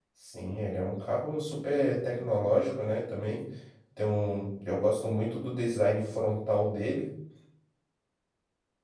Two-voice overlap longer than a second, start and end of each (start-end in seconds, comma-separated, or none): none